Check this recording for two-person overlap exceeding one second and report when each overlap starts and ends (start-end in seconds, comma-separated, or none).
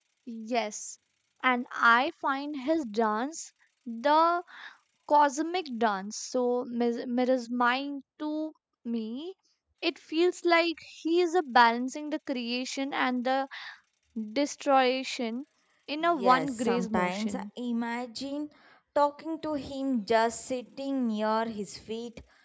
16.2-17.4